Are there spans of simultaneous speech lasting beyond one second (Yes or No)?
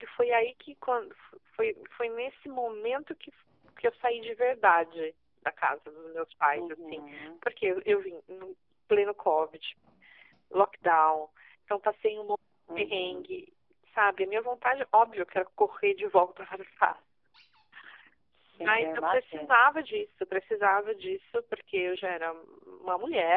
Yes